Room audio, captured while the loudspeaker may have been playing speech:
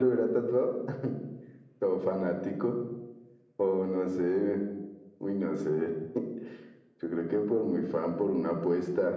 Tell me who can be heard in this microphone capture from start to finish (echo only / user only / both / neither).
echo only